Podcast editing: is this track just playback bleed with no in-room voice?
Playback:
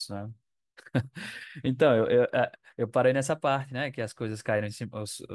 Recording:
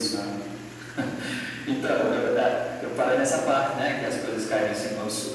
Yes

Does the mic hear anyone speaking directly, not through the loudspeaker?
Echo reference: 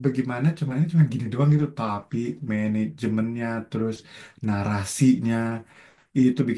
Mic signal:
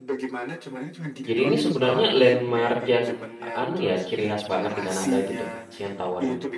Yes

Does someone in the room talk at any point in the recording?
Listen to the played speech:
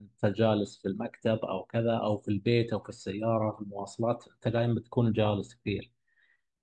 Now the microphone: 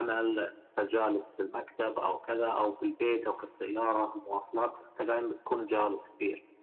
No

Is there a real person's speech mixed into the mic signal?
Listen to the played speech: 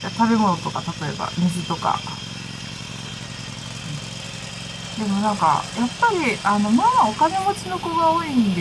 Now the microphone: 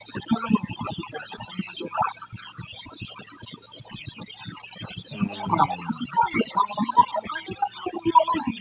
Yes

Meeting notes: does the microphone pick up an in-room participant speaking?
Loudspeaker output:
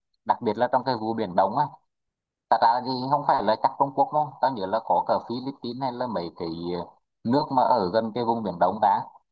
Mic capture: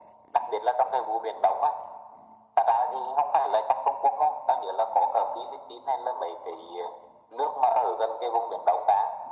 No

